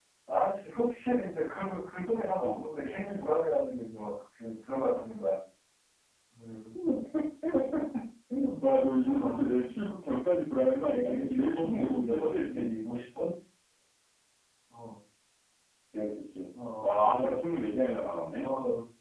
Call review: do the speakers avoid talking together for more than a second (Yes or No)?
No